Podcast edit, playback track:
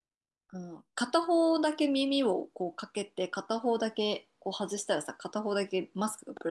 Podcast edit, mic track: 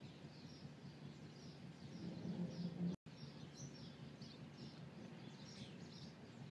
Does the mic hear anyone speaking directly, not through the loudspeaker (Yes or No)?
No